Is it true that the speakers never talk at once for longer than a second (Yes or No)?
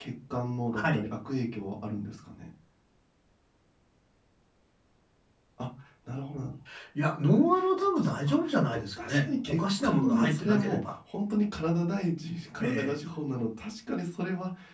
No